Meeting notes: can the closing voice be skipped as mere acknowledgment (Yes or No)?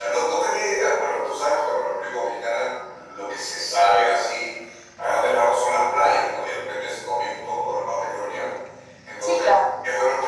Yes